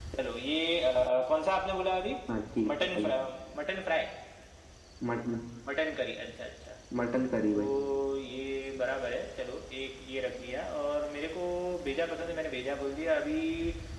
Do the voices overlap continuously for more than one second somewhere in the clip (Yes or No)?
No